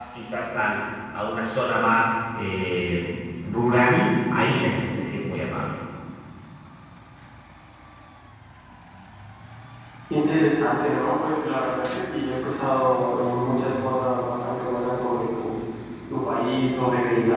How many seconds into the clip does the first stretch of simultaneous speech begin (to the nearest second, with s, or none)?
none